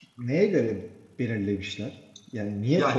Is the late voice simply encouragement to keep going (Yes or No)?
No